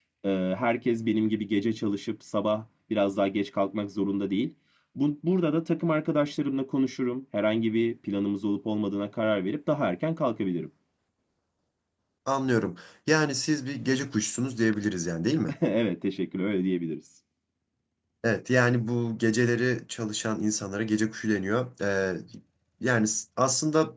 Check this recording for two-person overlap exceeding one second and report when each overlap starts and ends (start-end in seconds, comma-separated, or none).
none